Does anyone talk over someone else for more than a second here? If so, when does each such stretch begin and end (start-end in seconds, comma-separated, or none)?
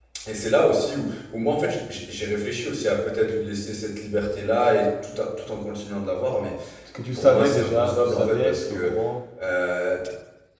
7.2-9.0